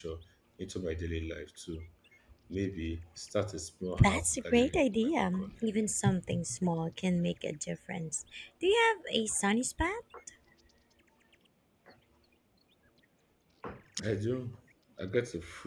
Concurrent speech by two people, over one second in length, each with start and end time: 4.0-5.7

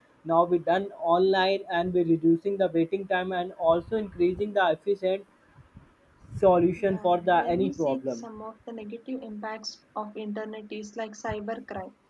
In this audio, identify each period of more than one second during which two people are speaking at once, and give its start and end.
6.8-8.2

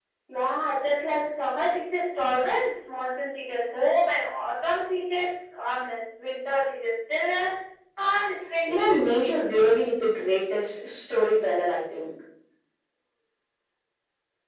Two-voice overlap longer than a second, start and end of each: 8.7-10.0

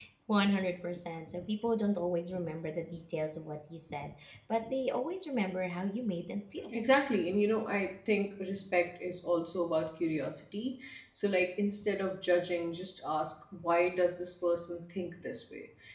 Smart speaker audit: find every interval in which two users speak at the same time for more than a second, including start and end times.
none

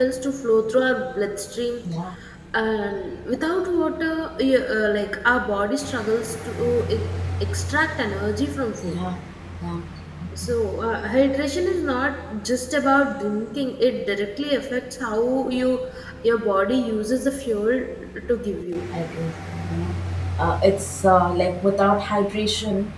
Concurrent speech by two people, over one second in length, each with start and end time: none

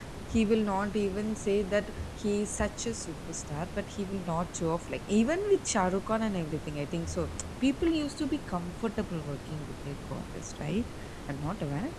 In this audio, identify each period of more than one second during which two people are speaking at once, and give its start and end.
none

